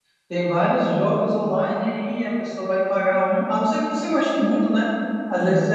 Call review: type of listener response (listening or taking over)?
listening